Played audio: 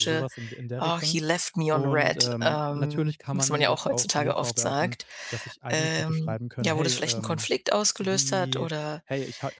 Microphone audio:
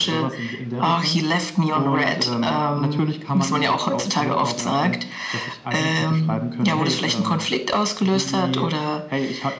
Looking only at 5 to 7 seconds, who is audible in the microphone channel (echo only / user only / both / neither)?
echo only